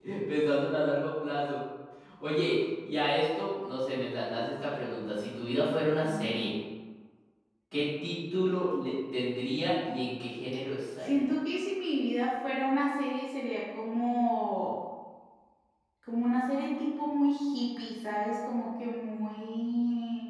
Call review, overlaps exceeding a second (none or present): none